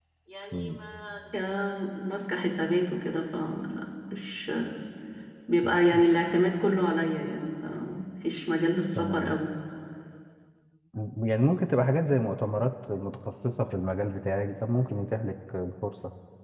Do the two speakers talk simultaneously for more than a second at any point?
No

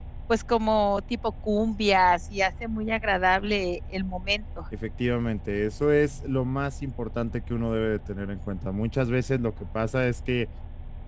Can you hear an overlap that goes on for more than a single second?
No

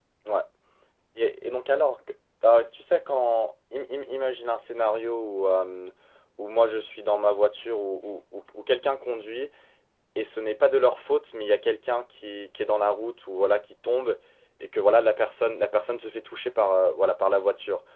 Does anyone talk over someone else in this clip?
No

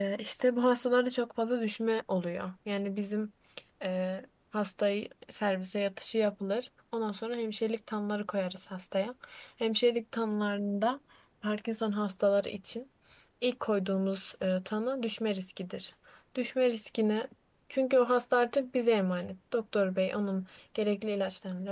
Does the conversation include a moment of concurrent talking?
No

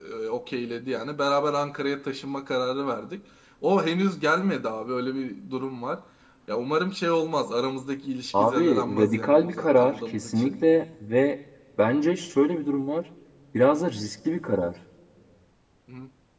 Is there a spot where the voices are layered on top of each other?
Yes, from 8.3 s

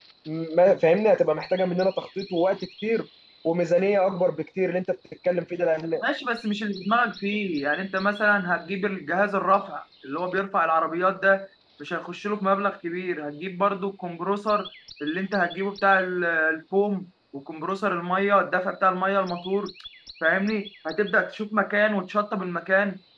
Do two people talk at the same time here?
No

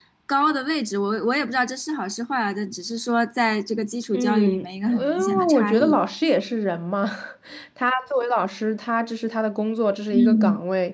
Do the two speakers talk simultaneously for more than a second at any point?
Yes, from 4.1 s

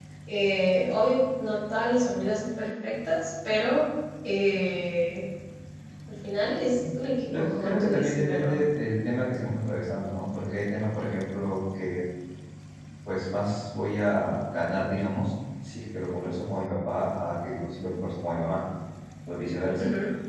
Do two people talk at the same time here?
Yes, from 7.3 s

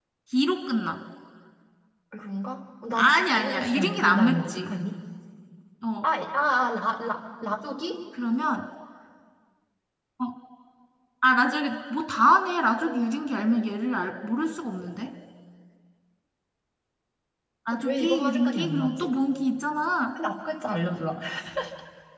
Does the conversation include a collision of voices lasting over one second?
Yes, from 3.0 s

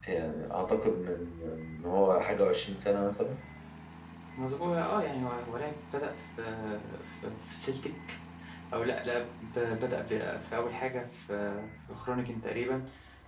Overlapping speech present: No

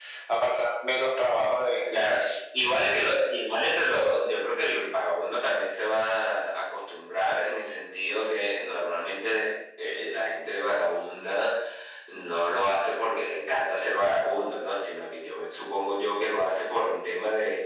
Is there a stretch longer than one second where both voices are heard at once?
No

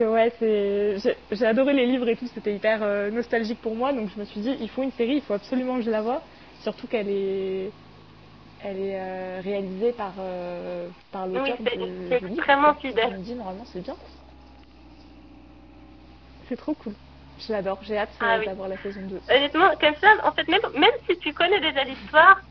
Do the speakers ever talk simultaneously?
Yes, from 11.3 s

